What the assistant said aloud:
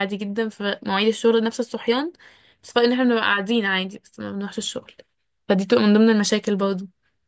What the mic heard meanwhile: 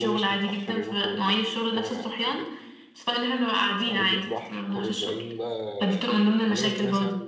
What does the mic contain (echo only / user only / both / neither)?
both